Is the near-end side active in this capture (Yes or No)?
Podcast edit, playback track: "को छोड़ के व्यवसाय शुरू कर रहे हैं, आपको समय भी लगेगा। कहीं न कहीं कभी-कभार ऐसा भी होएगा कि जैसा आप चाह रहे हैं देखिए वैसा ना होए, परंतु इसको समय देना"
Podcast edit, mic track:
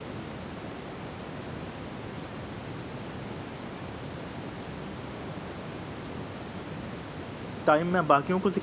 Yes